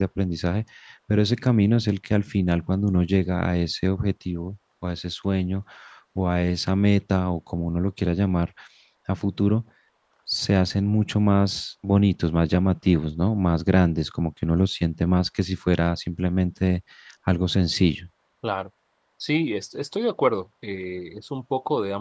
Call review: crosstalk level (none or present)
none